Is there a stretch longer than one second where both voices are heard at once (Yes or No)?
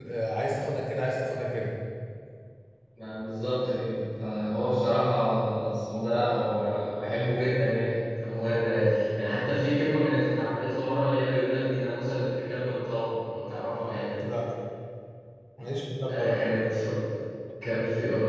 No